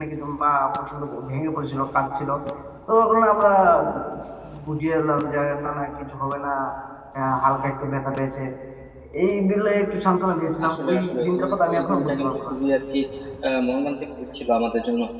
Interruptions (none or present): present